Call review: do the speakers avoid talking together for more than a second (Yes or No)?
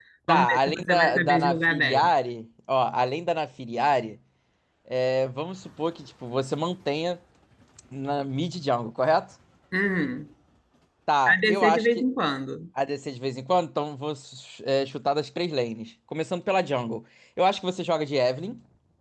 No